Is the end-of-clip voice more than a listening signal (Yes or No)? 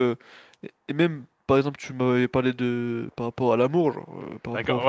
Yes